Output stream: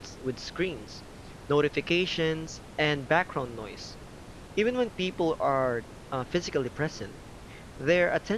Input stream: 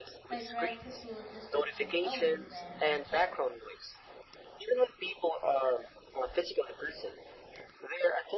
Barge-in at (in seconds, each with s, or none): 0.3 s